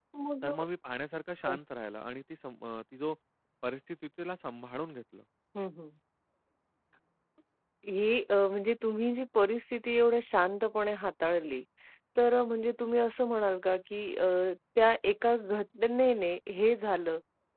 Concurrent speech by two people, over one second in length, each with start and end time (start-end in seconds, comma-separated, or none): none